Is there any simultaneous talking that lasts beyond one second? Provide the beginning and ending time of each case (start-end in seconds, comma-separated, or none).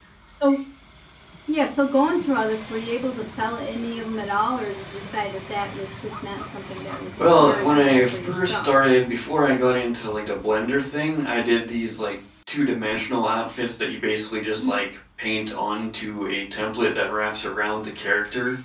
7.4-8.8